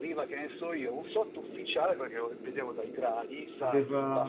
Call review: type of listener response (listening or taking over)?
listening